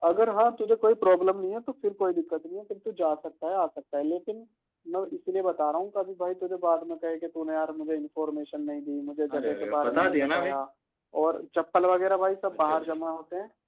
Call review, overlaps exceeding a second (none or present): present